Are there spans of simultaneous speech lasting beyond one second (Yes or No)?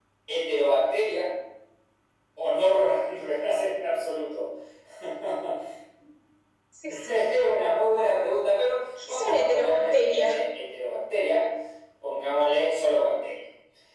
Yes